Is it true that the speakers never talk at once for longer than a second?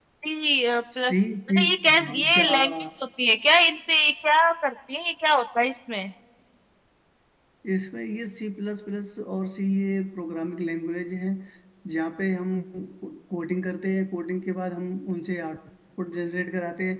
No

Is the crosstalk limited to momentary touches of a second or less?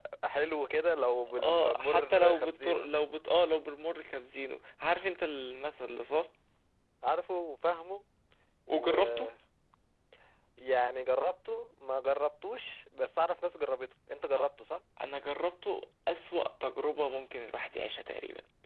No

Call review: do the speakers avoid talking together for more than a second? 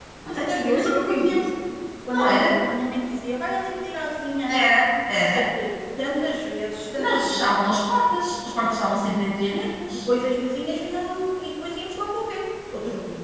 No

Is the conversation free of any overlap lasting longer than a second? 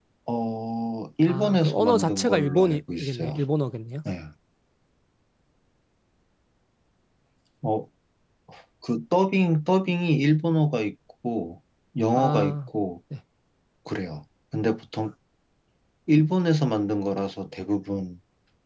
No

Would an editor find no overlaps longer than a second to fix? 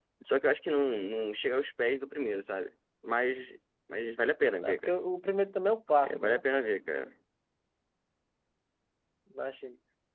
Yes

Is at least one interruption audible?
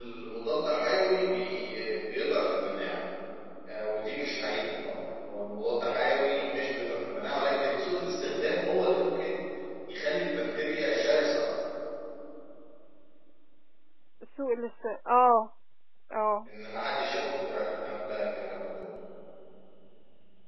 No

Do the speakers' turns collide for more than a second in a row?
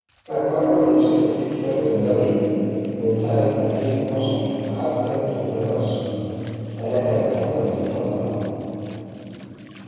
No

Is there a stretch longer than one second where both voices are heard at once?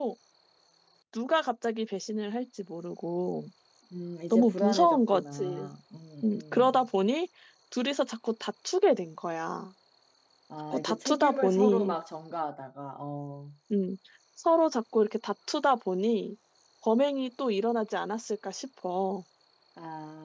Yes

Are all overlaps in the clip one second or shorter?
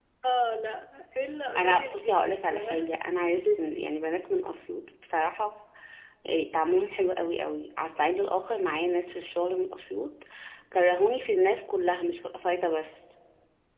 No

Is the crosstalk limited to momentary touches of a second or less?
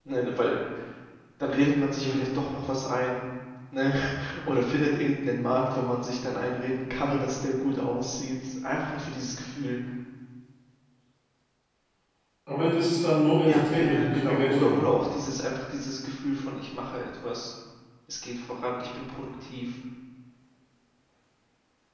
No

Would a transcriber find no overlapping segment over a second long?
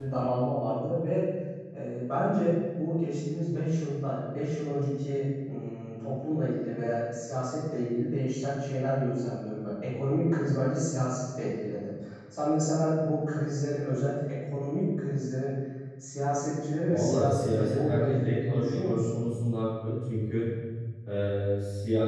No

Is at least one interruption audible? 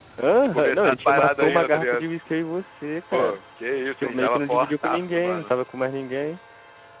Yes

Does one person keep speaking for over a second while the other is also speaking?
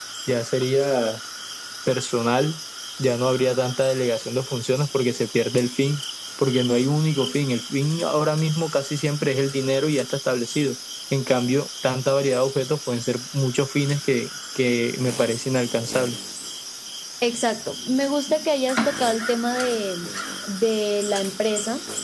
No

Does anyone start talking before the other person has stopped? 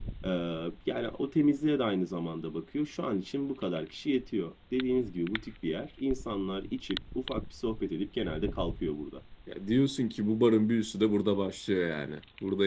No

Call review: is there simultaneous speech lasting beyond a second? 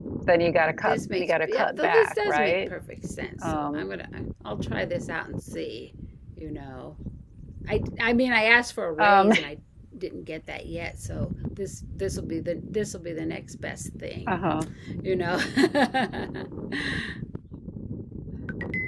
Yes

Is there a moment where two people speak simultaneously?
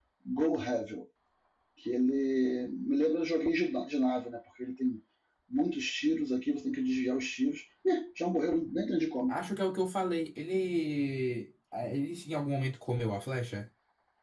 No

